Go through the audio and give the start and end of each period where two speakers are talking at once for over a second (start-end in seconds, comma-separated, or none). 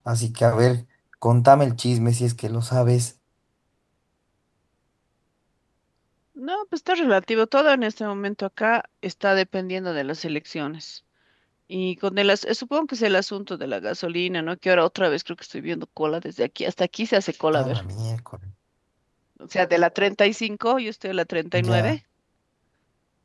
none